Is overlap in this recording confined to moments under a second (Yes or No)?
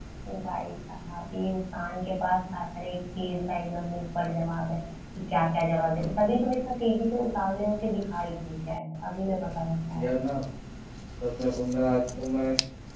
Yes